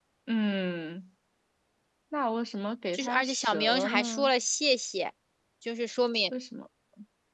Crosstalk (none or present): present